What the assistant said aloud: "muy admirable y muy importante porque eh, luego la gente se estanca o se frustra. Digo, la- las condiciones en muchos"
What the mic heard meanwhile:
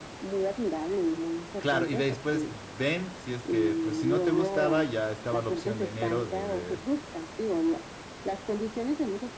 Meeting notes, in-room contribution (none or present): present